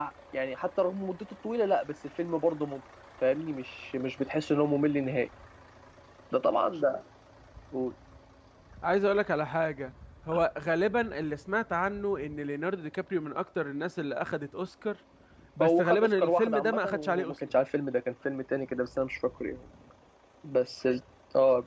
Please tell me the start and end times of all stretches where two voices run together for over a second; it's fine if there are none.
15.6-17.3

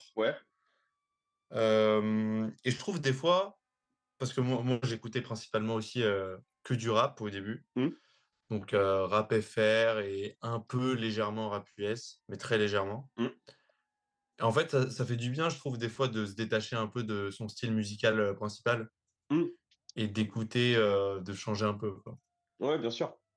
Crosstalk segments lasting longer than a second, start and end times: none

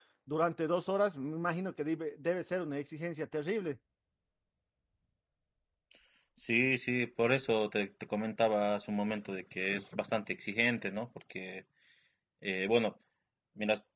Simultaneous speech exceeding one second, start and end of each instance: none

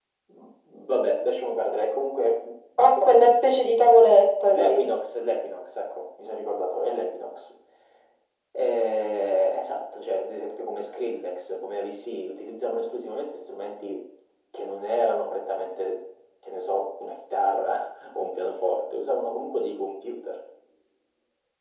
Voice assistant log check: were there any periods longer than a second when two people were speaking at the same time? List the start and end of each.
none

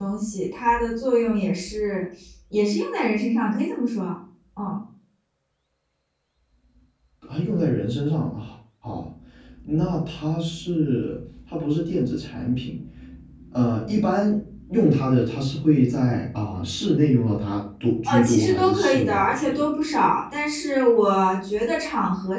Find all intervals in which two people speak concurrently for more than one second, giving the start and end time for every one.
18.1-19.6

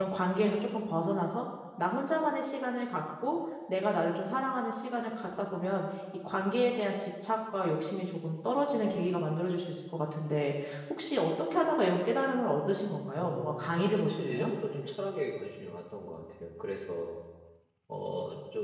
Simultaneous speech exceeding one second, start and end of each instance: 13.2-14.5

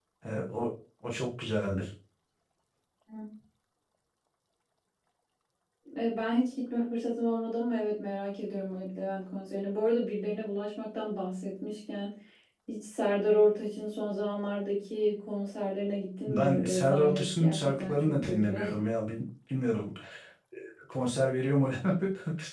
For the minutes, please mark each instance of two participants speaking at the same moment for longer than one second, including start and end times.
16.3-18.6

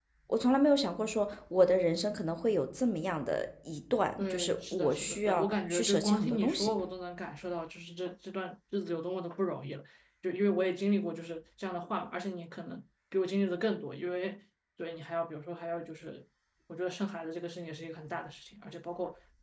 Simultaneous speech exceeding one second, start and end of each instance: 4.2-6.7

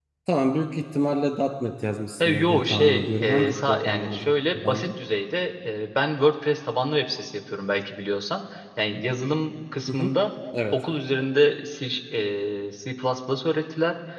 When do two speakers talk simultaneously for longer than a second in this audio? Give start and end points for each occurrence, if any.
2.2-4.9

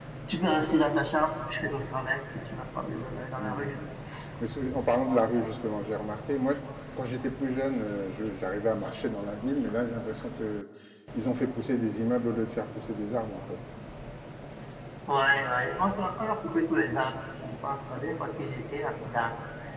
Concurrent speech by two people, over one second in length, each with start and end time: none

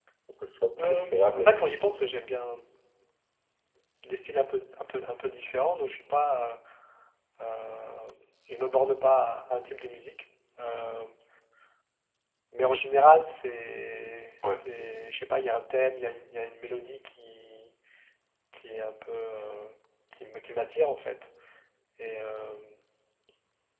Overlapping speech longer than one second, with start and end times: 0.8-2.0

